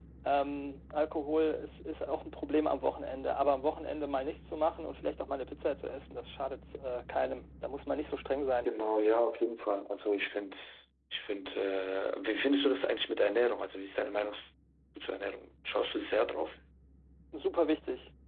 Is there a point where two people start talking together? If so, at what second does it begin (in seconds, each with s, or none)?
none